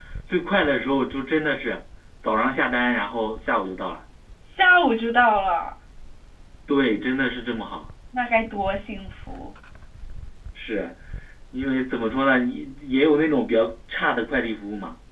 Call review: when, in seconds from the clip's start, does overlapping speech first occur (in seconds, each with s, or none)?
none